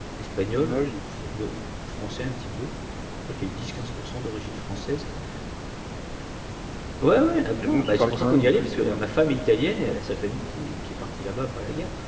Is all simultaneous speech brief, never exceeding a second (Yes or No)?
No